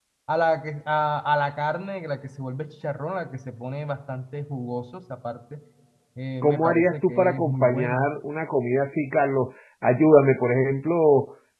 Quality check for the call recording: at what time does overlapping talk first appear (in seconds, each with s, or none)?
6.4 s